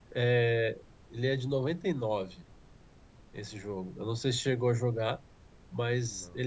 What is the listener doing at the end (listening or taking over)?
listening